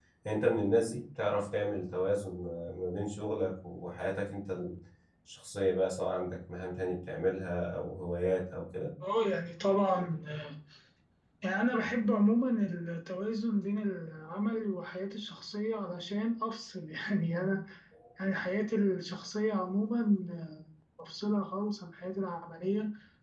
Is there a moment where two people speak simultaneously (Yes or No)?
No